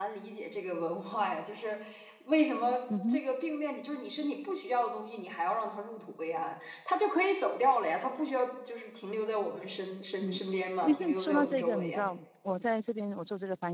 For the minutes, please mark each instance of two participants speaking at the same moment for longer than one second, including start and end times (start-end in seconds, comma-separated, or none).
10.8-12.1